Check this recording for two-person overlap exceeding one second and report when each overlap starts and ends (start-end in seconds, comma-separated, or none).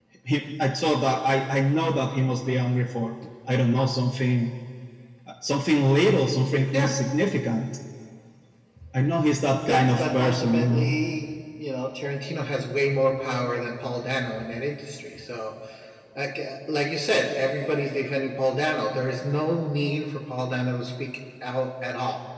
9.7-11.0